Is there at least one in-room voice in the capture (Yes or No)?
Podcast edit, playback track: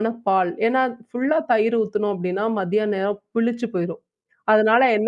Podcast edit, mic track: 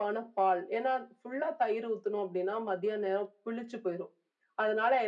No